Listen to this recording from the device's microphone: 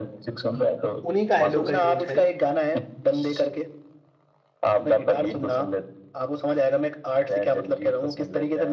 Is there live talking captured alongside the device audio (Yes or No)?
Yes